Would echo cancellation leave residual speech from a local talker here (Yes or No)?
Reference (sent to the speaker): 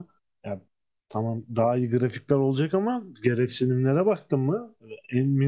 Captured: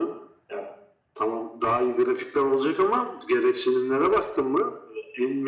No